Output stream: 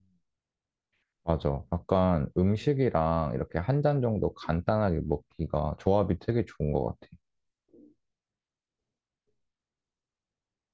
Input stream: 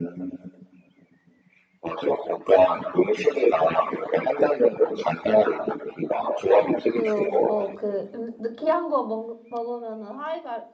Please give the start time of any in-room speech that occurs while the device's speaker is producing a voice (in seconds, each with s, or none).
6.5 s